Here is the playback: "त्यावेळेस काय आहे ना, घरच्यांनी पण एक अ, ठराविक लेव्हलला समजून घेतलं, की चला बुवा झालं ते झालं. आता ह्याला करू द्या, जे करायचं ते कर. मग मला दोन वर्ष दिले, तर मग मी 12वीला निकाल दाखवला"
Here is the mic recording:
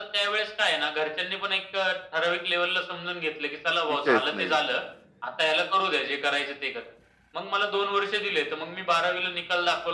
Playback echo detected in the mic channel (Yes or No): Yes